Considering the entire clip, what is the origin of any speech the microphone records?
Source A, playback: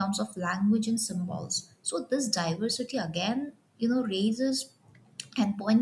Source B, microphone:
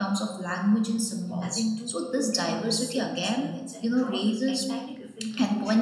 both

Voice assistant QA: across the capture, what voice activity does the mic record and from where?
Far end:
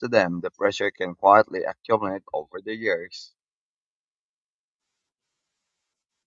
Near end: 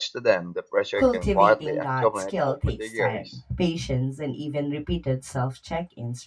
both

